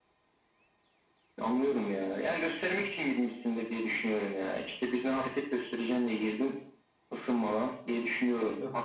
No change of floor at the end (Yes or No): No